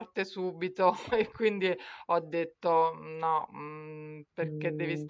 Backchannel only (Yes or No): Yes